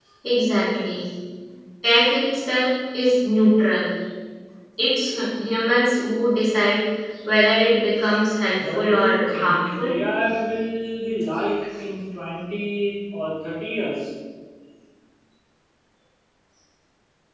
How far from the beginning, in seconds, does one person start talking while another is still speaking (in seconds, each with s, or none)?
8.6 s